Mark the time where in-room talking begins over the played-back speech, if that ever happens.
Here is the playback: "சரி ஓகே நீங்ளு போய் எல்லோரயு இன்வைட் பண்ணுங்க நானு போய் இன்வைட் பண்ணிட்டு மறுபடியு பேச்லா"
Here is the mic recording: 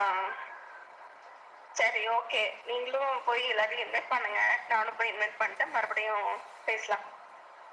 none

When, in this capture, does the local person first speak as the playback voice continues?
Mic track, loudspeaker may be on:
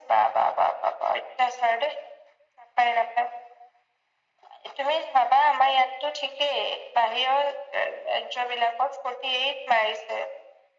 none

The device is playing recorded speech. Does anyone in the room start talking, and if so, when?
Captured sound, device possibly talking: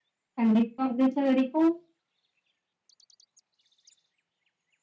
0 s

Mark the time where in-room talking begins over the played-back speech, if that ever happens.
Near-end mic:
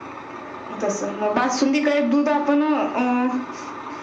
none

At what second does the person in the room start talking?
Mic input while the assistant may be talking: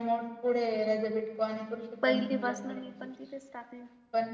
2 s

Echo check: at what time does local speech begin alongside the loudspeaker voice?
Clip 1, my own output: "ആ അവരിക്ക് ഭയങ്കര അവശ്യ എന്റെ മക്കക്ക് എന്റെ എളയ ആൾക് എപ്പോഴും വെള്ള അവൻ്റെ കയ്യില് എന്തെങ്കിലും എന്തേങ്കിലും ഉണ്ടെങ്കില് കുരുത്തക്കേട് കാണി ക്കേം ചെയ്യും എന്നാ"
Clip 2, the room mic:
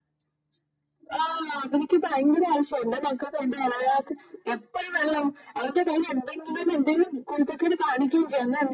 none

